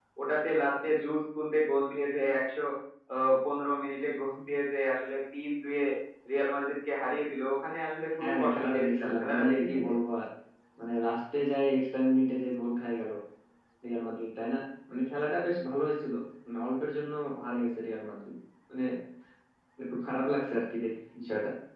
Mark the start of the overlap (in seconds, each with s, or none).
8.2 s